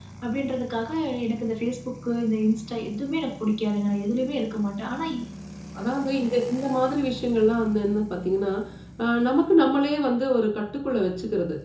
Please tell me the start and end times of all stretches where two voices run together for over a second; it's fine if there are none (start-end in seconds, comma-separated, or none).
none